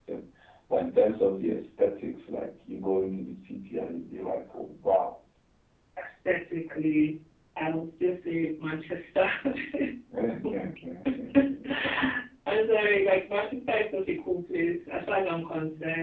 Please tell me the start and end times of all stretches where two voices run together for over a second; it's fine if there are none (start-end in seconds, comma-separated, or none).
none